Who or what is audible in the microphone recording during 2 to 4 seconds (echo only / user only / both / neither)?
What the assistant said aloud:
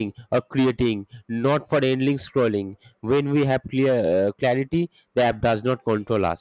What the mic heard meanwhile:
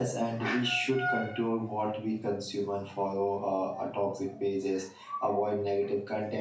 user only